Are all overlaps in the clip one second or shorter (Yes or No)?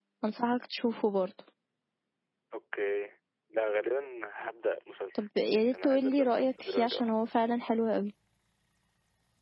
No